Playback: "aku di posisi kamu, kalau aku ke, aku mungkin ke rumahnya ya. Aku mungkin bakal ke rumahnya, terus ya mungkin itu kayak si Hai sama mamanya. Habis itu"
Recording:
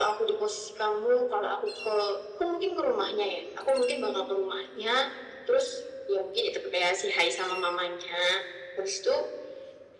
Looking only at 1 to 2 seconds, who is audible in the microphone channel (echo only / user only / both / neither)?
echo only